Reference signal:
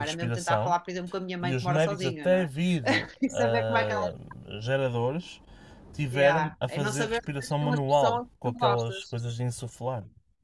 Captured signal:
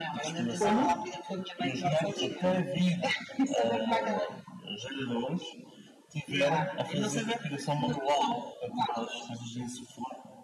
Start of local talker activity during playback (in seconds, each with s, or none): 0.6 s